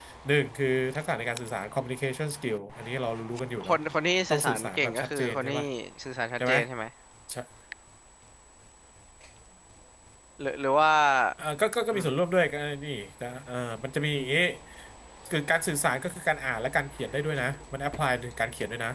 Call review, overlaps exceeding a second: present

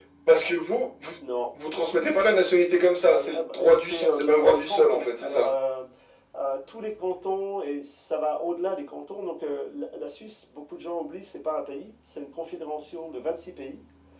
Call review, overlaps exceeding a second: present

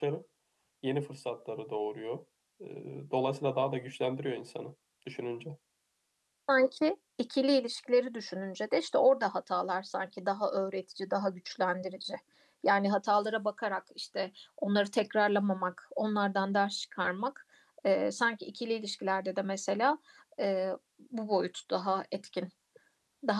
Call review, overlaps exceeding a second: none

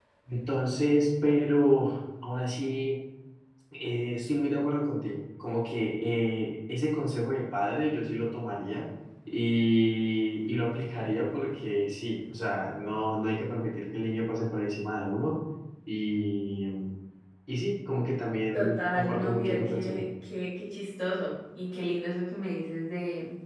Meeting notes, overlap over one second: present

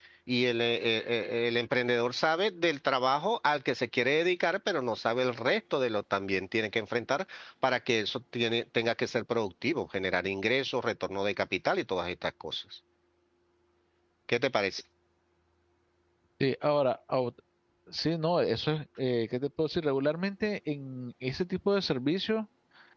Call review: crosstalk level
none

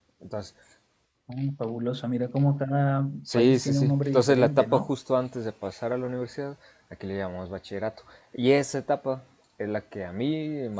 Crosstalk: present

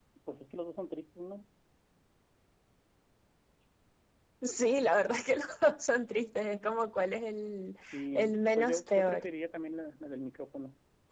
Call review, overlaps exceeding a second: present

